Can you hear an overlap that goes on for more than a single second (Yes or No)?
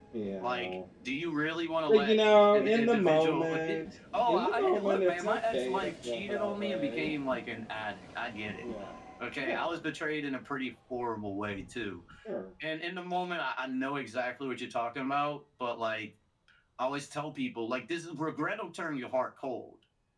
Yes